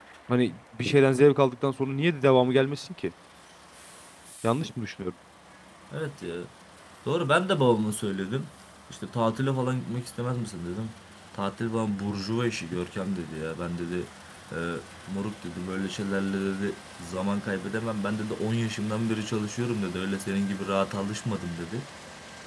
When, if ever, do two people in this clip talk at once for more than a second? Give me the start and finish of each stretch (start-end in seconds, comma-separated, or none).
none